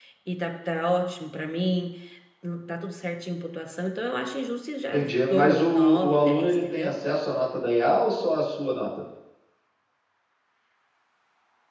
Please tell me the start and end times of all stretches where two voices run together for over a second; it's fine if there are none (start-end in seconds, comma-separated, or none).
4.9-6.9